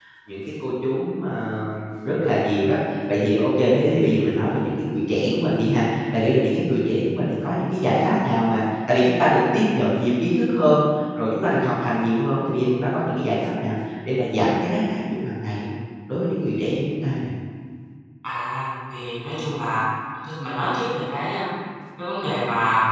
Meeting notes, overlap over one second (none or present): none